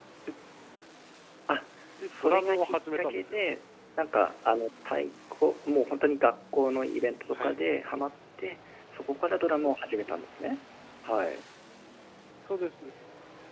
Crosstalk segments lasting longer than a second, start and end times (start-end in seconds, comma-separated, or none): 2.1-3.4